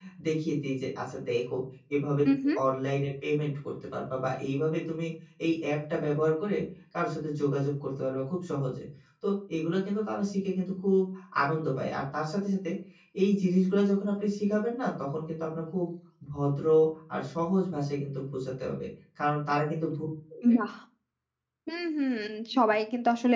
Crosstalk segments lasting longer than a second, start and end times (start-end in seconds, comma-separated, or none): none